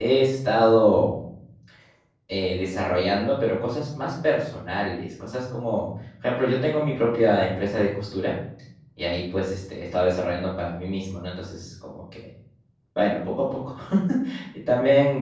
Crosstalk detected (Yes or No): No